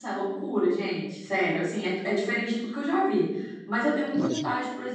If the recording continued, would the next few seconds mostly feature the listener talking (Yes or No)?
No